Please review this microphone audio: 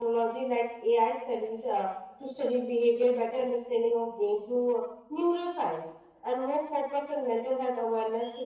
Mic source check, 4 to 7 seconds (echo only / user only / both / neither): user only